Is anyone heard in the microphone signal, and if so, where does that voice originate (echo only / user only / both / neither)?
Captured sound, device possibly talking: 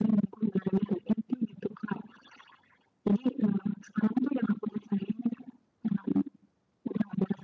echo only